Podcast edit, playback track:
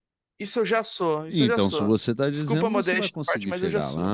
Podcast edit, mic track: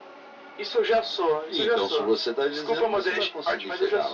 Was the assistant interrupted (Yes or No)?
No